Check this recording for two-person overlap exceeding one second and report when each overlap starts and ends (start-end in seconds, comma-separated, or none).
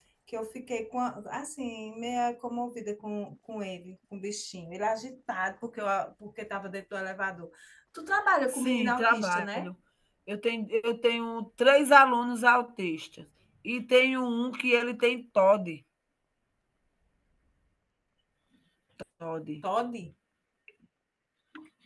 8.5-9.7